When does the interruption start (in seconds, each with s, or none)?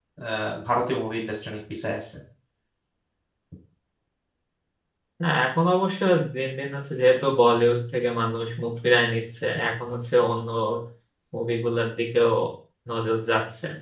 none